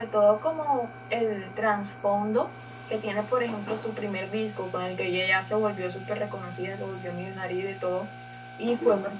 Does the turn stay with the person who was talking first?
Yes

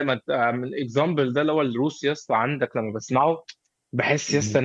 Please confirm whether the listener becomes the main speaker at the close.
No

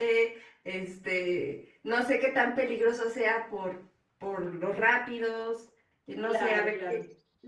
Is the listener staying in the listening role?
No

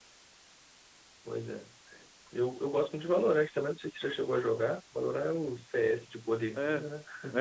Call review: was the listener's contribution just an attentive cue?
No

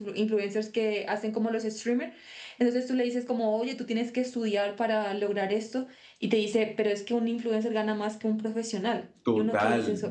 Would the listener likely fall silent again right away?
No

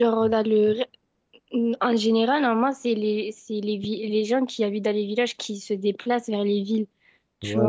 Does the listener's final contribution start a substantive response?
Yes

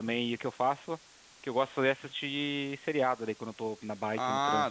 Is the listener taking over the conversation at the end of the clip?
Yes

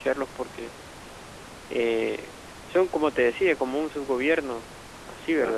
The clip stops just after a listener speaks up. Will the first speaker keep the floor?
Yes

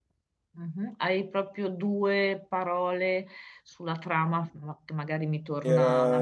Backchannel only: No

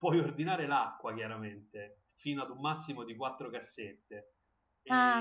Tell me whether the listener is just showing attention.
No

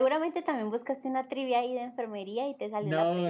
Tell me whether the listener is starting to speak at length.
Yes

